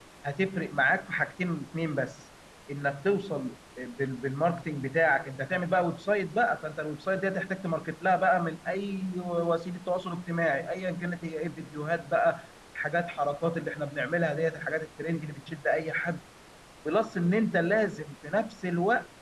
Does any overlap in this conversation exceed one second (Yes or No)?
No